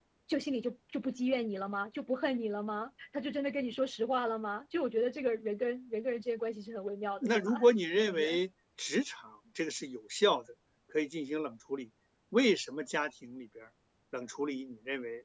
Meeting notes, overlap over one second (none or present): none